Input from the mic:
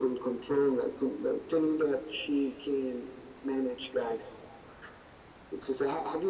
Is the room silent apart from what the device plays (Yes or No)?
Yes